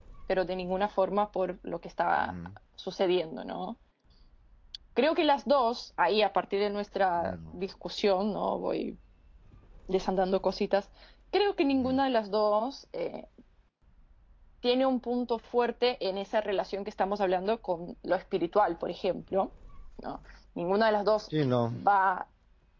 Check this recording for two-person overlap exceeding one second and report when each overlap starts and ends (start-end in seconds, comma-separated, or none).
none